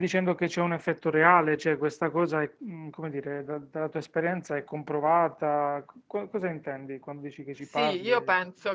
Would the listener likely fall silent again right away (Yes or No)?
No